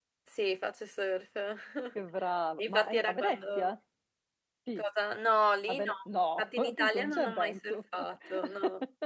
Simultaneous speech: Yes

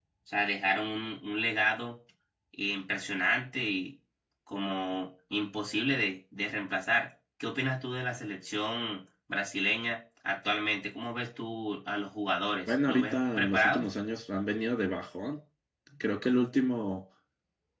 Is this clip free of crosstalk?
No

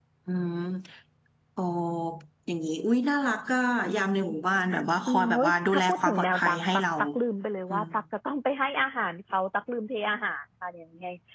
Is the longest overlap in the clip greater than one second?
Yes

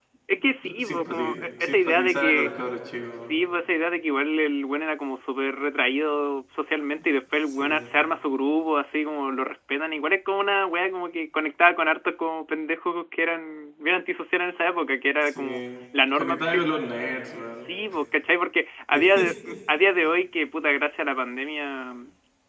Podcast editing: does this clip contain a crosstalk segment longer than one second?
Yes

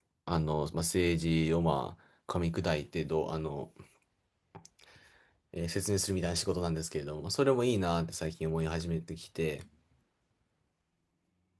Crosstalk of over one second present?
No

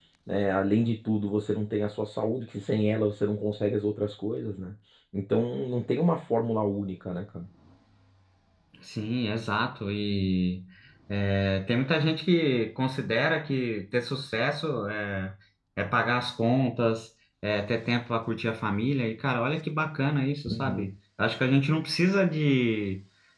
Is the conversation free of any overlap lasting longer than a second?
Yes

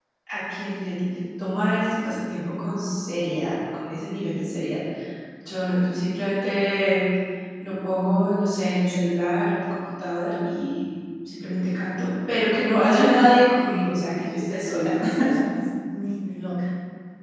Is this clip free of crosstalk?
No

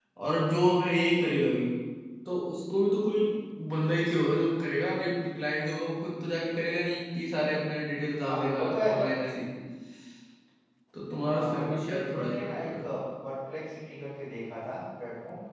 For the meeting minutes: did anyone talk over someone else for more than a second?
Yes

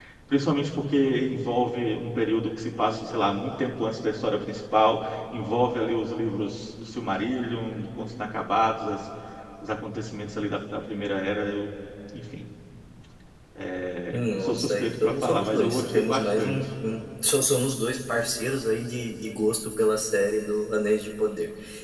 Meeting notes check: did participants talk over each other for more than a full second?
Yes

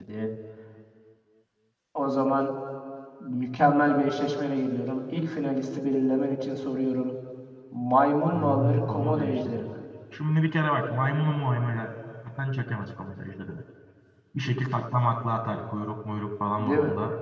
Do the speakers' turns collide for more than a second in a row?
Yes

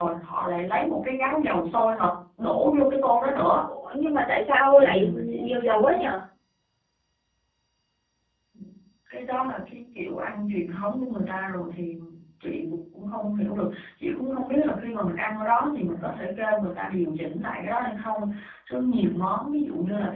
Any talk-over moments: Yes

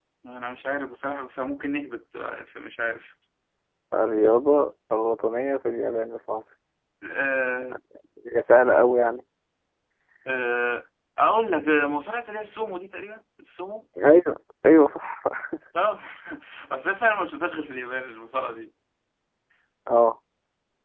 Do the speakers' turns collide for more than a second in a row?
No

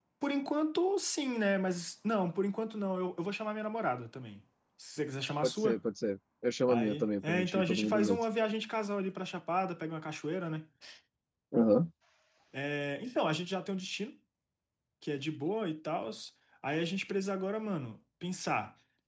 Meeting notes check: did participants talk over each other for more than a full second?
Yes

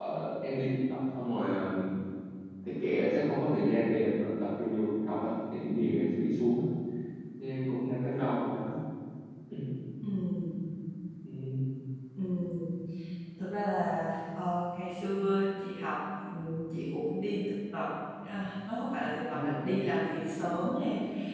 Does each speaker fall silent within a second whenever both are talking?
Yes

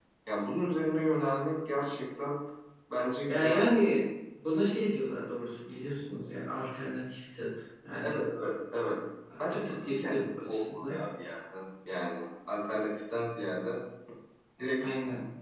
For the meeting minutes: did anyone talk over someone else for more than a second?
Yes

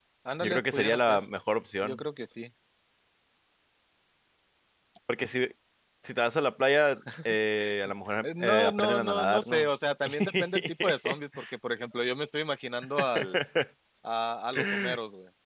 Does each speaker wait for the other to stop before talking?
No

